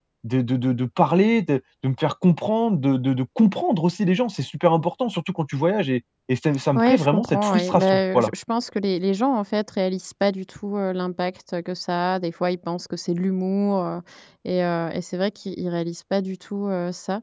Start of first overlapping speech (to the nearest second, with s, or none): 7 s